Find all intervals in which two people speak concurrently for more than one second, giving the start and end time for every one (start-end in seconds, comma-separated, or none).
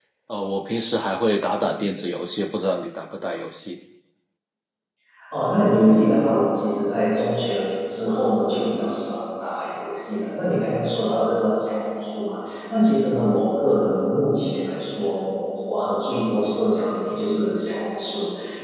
none